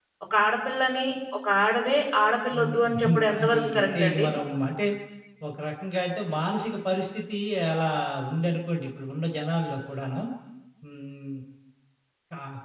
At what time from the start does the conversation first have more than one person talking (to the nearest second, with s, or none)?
3 s